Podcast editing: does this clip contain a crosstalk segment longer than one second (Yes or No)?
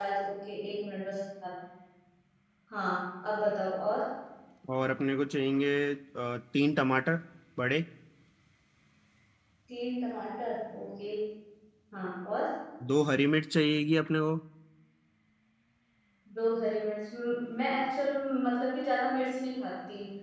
No